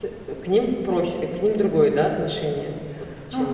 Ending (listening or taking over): taking over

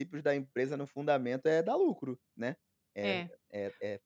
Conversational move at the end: listening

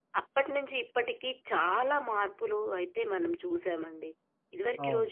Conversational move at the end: listening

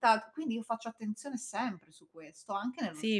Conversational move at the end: taking over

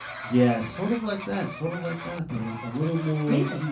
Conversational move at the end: taking over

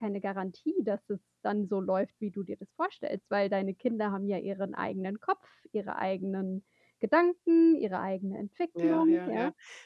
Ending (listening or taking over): taking over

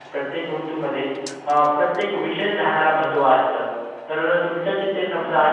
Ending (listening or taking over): listening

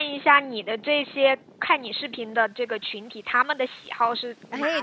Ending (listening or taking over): taking over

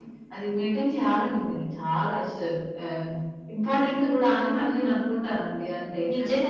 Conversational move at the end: taking over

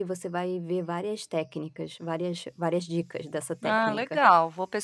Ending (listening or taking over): taking over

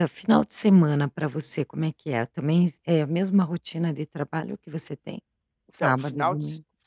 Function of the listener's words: taking over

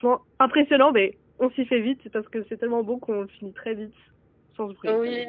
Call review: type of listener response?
taking over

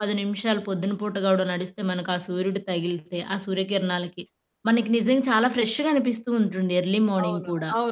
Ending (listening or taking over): taking over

